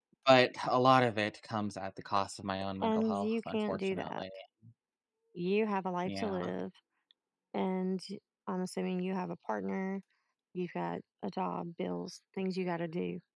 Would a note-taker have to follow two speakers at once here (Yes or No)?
Yes